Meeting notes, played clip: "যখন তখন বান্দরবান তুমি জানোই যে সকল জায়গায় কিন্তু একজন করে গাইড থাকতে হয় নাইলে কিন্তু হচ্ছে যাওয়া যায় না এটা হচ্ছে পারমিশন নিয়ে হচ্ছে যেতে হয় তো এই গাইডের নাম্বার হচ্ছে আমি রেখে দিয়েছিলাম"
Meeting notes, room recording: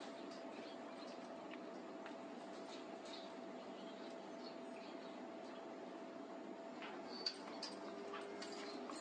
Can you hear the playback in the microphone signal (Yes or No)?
No